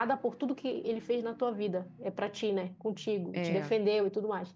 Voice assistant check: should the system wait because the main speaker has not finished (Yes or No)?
Yes